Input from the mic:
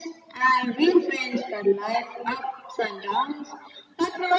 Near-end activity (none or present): none